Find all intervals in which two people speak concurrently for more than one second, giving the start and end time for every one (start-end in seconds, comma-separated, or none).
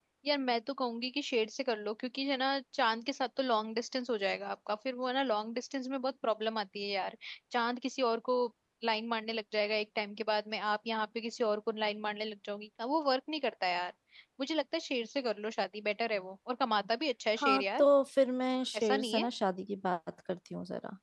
none